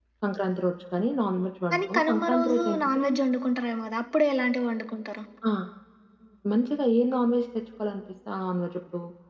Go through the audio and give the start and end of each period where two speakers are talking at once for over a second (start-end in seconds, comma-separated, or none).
1.7-3.2